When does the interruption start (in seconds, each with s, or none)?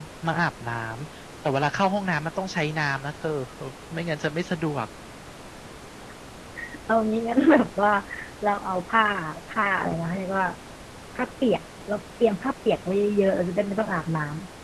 none